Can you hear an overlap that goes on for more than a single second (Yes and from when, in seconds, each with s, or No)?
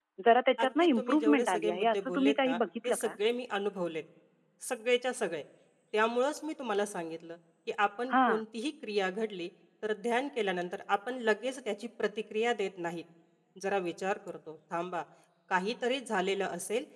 Yes, from 0.6 s